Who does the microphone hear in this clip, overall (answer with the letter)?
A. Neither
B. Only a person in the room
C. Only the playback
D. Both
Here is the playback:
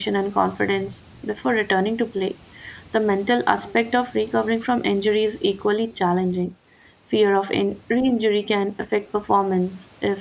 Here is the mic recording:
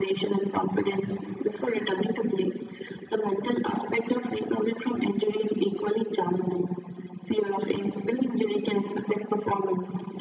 C